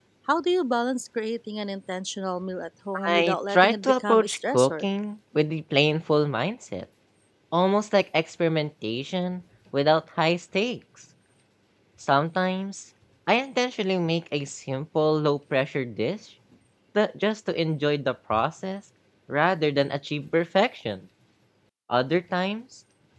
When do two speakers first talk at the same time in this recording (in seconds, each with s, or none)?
2.9 s